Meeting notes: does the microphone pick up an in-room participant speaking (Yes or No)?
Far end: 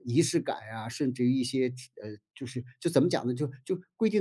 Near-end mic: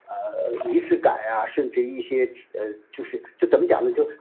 No